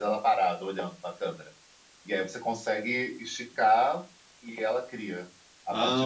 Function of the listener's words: taking over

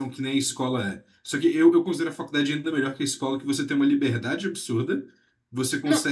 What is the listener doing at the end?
listening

